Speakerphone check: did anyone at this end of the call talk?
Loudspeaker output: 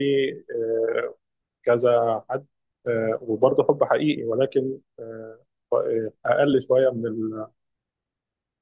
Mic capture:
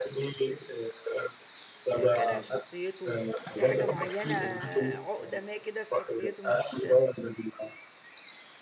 Yes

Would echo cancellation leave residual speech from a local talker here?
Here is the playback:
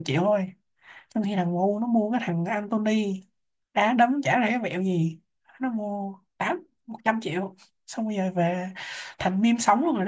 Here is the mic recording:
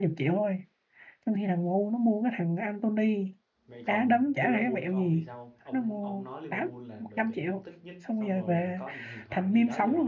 Yes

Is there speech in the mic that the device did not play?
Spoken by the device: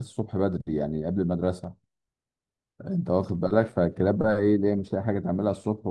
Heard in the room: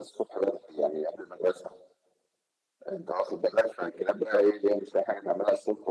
No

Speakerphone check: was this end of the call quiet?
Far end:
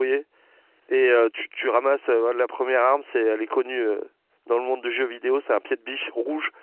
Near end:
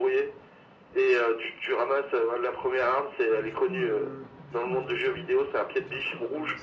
No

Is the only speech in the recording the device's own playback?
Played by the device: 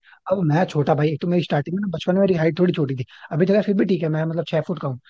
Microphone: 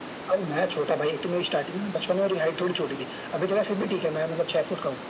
Yes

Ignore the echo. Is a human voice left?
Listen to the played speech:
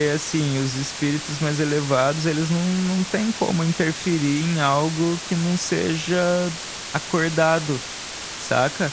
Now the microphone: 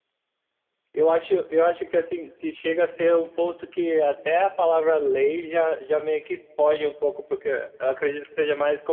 Yes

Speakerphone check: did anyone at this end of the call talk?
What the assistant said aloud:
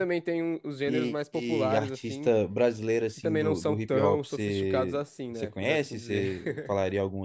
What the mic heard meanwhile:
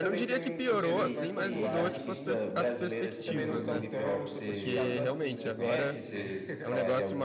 Yes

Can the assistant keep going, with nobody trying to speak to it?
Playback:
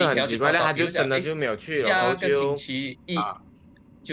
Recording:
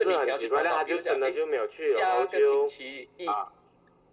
Yes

